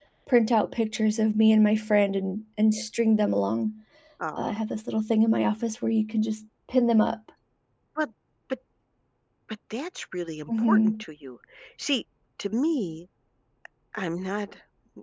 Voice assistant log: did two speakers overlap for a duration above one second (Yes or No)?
No